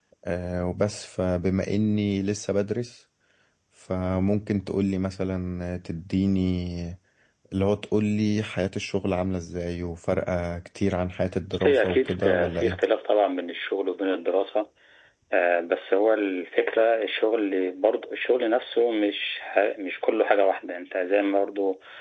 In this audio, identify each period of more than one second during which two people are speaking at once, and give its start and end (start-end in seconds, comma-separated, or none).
11.5-12.8